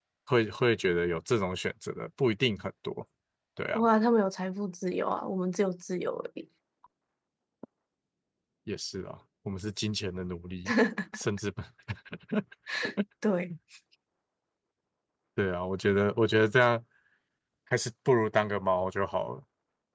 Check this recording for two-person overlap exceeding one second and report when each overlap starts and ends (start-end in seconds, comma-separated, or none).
none